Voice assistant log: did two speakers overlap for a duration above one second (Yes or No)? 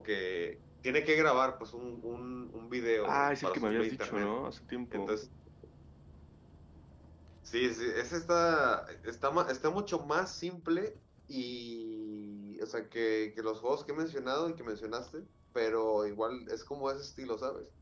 Yes